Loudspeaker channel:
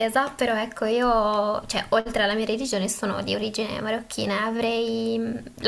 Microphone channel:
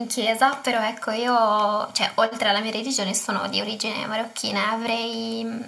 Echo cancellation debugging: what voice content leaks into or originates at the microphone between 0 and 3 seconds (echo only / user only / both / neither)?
echo only